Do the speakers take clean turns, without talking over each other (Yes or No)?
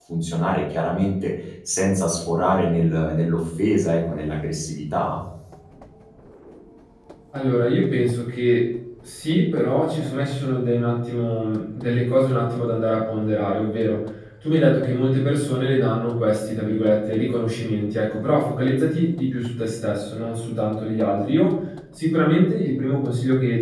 Yes